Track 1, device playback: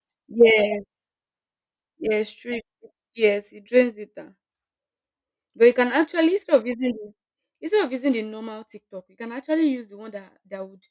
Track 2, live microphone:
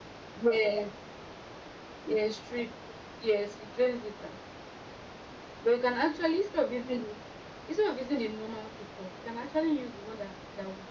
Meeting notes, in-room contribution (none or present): none